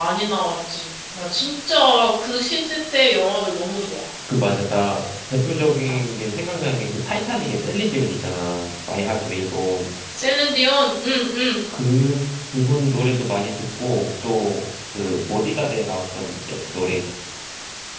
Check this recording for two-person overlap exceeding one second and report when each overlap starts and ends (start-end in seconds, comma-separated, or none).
none